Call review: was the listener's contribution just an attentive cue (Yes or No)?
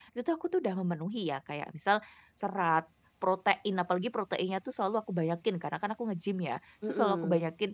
Yes